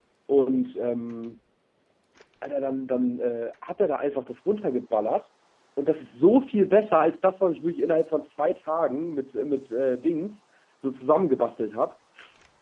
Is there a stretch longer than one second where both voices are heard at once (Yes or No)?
No